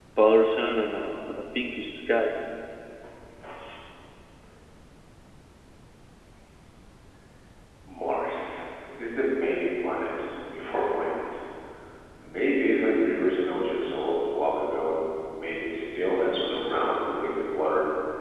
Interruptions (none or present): none